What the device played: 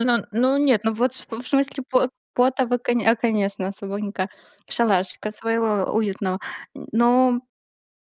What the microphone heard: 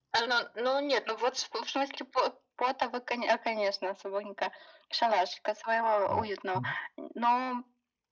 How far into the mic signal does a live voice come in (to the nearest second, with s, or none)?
6 s